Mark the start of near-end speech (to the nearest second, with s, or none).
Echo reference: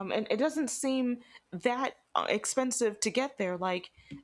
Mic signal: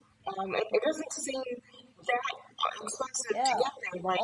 3 s